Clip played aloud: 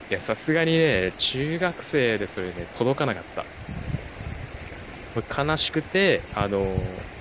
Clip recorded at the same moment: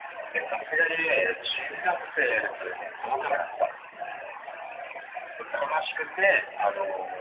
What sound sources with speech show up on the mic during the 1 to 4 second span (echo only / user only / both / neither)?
echo only